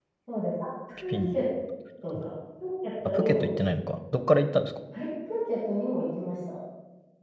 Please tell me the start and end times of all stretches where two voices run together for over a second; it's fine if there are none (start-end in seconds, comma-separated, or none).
none